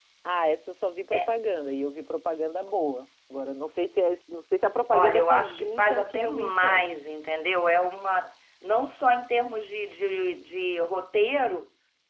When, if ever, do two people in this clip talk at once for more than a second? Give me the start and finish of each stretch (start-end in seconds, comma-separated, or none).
4.9-6.8